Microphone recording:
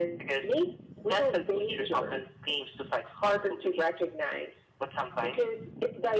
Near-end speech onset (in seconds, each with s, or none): none